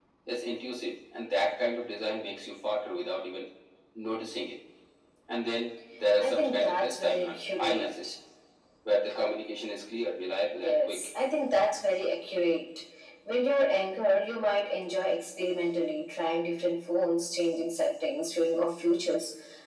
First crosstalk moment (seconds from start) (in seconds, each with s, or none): 6.2 s